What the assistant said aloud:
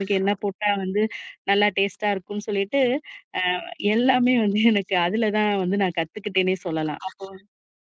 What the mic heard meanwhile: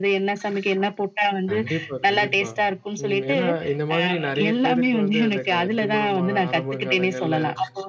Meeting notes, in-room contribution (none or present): present